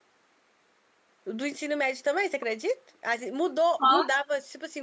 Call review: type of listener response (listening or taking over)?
listening